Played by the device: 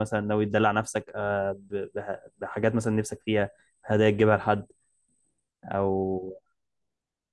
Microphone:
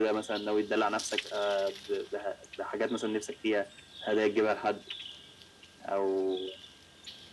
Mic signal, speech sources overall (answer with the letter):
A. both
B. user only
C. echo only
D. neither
C